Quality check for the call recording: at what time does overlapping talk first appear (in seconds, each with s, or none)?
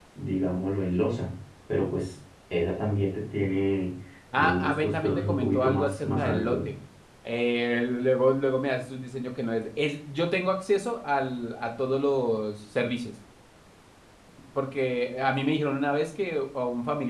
4.3 s